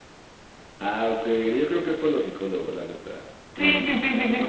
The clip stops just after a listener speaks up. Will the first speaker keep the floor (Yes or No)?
No